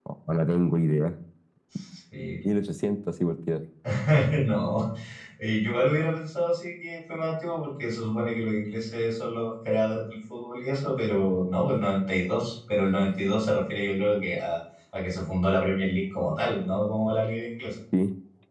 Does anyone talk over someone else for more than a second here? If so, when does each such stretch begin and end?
none

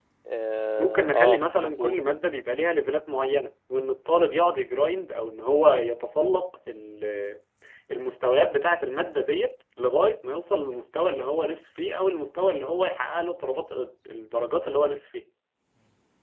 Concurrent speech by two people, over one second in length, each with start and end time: 0.8-2.0

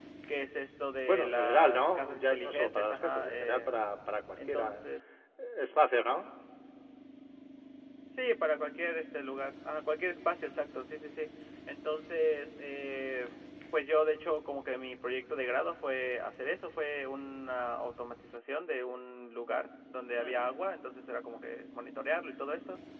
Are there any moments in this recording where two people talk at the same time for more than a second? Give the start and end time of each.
1.1-3.7

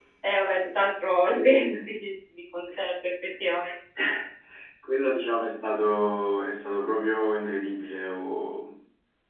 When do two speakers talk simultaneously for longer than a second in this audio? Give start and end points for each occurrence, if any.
none

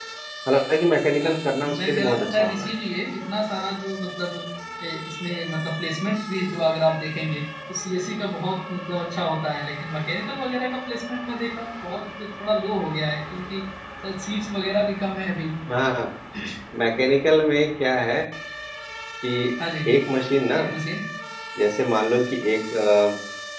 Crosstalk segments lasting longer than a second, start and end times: 1.3-2.7

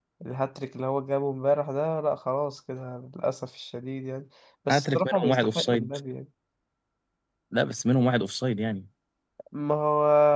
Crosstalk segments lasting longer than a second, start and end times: 4.7-6.0

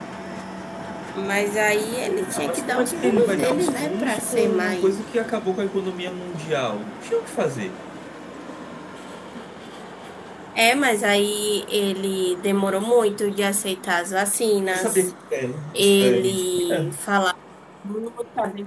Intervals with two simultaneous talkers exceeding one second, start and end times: 2.3-5.0, 15.7-17.0

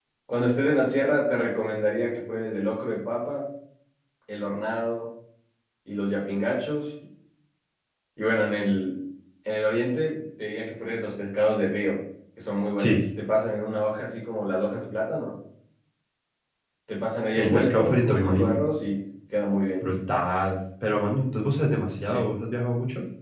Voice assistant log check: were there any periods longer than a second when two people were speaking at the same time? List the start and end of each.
17.4-18.6

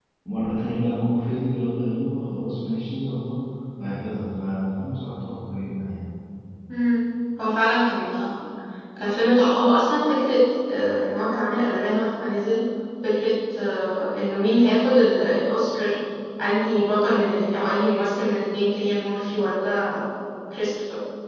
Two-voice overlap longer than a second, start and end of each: none

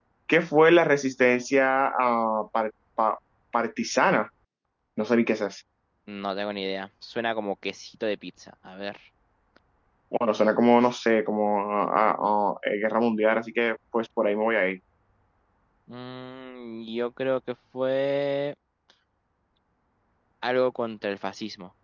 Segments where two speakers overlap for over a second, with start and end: none

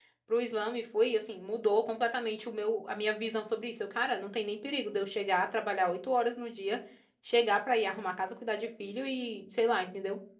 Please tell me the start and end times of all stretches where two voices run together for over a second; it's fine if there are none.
none

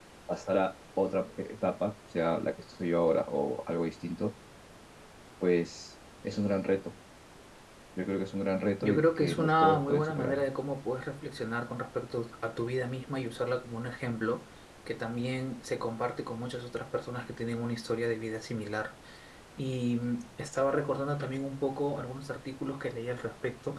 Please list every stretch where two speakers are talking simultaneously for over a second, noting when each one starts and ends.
8.8-10.4

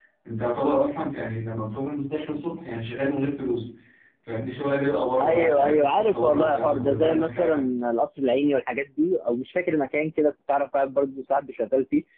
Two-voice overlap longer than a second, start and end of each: 5.2-7.7

